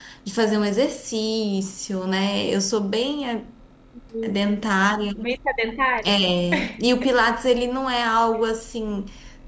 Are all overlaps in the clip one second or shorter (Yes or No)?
Yes